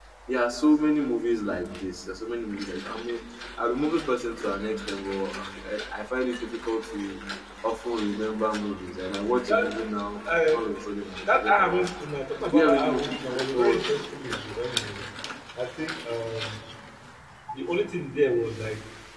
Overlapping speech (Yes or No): Yes